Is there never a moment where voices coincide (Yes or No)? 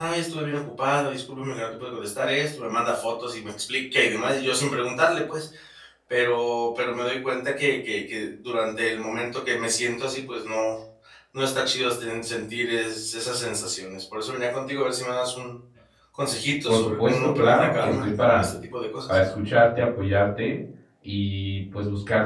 No